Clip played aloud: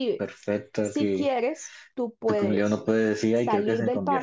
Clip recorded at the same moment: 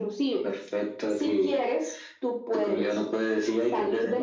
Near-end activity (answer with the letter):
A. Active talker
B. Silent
B